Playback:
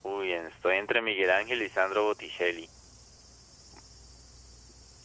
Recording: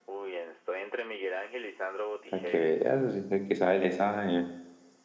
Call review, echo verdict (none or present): present